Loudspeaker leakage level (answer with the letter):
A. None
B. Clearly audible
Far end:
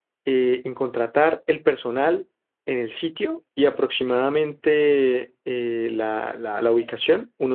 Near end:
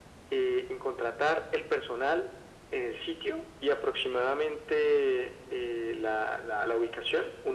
B